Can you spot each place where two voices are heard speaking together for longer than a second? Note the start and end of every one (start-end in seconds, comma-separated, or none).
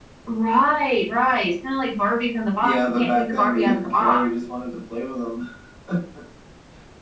2.6-4.2